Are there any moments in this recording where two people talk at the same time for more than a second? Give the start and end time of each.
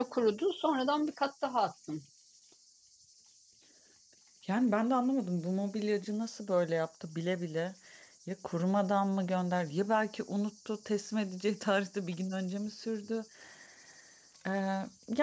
none

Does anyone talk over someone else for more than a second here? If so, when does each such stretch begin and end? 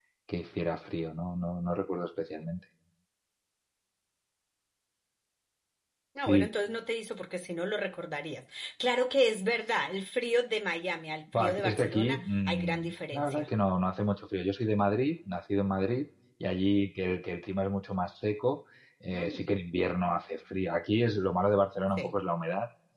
11.3-13.5

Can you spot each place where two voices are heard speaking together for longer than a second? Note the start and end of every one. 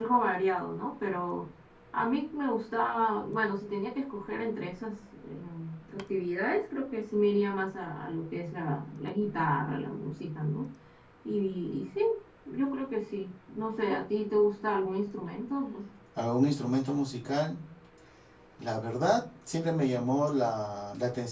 none

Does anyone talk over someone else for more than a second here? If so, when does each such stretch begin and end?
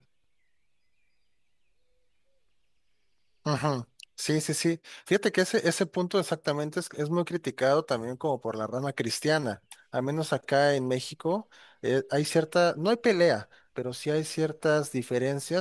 none

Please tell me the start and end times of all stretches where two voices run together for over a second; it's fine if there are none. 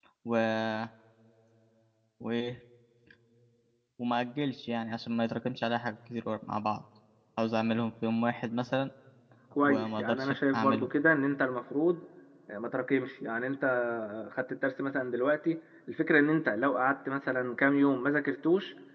9.6-10.9

